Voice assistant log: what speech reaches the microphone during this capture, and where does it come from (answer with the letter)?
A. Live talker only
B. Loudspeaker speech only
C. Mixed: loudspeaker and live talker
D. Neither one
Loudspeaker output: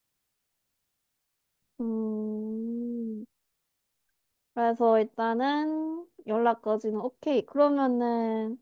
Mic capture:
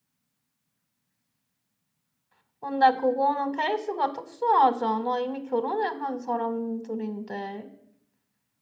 A